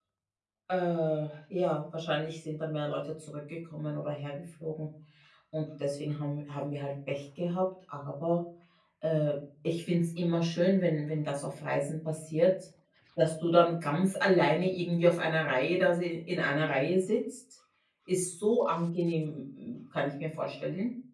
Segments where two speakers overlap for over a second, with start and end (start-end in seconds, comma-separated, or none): none